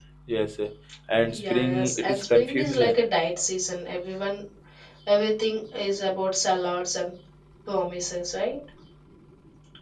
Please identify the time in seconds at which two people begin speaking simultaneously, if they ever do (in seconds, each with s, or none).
1.3 s